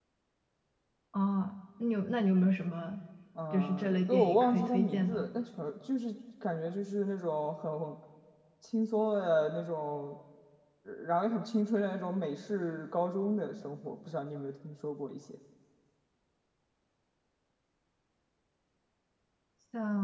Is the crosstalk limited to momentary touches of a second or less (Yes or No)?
No